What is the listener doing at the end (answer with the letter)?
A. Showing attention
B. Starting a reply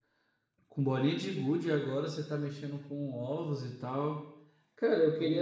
A